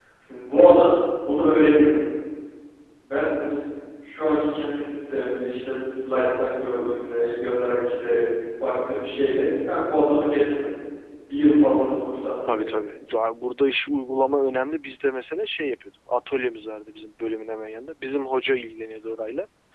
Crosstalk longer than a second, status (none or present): none